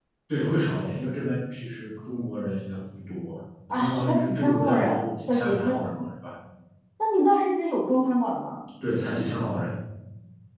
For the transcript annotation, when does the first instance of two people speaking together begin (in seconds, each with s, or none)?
3.7 s